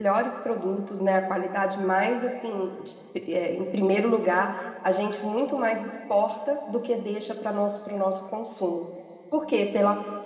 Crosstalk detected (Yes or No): No